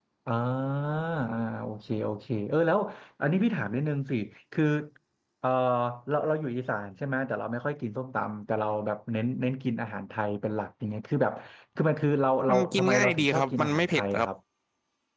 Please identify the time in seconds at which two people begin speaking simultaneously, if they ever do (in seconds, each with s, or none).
12.5 s